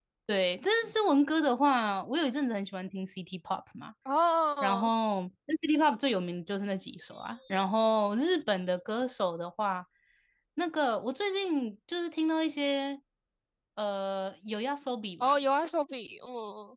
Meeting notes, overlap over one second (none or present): none